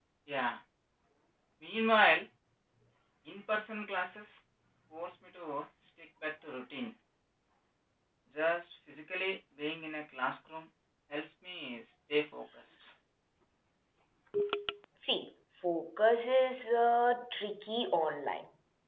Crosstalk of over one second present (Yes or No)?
No